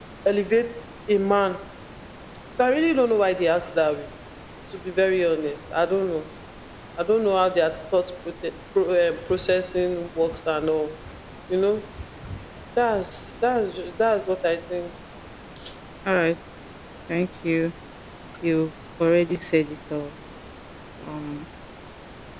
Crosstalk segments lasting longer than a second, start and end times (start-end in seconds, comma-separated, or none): none